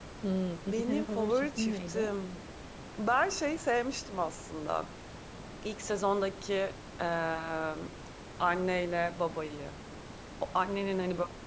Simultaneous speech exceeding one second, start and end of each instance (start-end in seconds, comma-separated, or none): 0.7-2.1